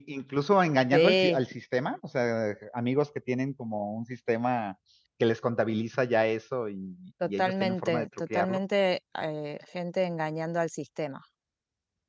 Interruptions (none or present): present